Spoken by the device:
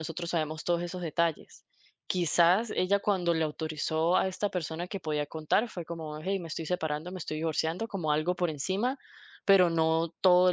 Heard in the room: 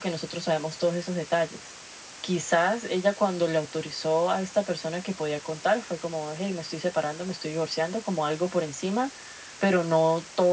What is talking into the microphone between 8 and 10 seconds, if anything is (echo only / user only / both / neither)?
echo only